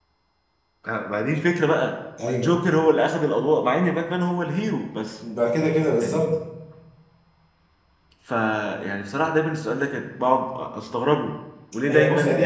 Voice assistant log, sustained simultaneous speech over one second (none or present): none